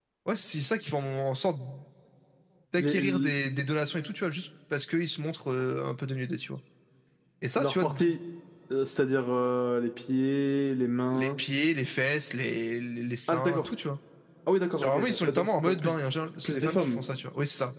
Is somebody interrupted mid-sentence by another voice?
Yes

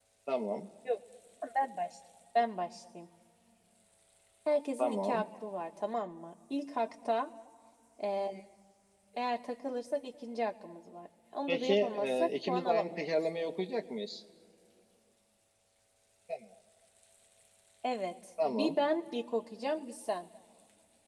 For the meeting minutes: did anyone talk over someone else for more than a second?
Yes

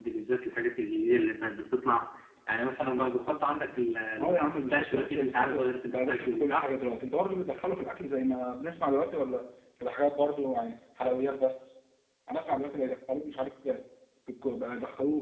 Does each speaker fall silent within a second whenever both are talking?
No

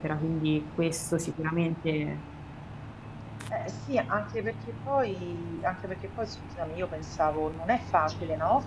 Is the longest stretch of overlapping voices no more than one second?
Yes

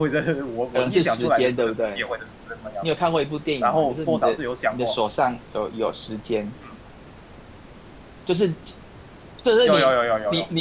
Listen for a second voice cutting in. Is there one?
Yes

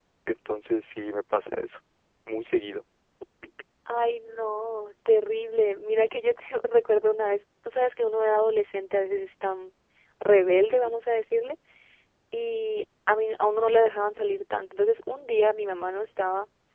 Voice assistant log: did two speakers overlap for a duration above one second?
No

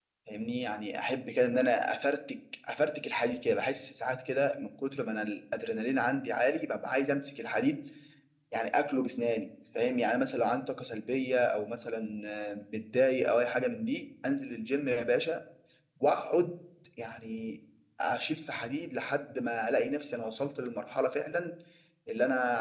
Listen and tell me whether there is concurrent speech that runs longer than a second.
No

